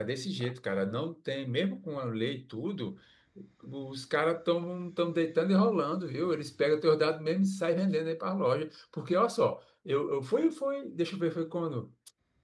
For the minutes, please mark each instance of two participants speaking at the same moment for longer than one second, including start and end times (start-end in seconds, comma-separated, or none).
none